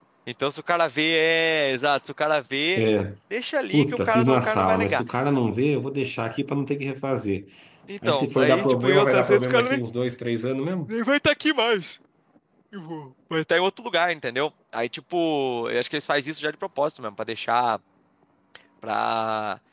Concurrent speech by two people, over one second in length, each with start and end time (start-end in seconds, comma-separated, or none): 3.7-5.0, 8.1-9.8